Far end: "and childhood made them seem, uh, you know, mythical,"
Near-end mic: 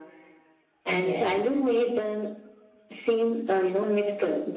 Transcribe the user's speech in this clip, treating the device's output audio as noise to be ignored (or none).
Yes.